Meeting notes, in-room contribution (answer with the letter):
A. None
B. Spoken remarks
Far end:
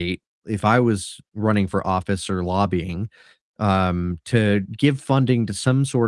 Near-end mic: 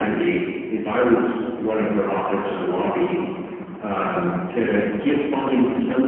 A